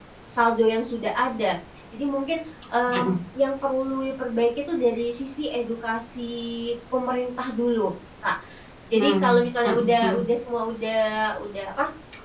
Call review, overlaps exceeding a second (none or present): present